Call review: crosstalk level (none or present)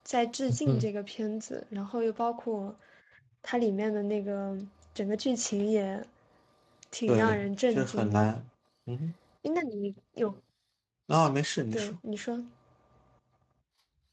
present